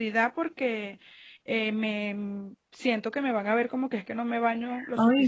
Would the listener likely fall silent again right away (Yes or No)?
No